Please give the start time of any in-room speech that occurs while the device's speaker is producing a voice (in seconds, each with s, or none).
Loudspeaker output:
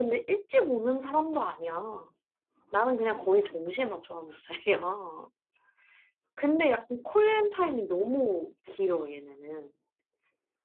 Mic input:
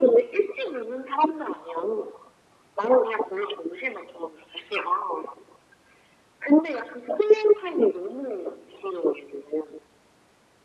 none